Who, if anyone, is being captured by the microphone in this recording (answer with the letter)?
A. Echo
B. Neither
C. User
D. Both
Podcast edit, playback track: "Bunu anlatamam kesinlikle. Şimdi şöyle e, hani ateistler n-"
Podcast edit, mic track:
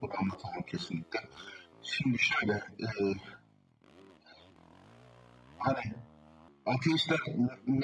A